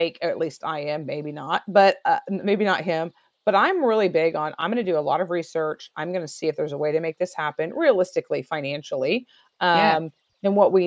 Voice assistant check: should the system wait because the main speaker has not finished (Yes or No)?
Yes